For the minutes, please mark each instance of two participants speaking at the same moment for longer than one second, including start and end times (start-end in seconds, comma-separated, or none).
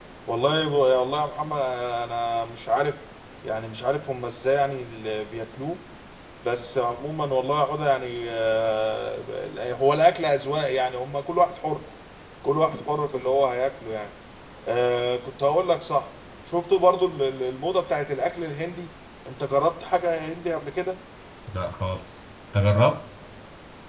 none